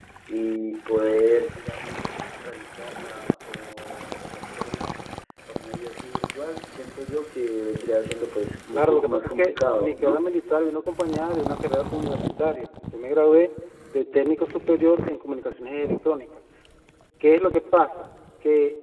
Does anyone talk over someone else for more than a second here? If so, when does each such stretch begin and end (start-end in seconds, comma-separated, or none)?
8.7-10.2